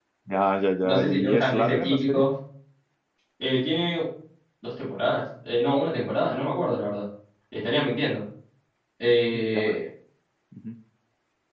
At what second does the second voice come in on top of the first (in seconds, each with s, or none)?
0.8 s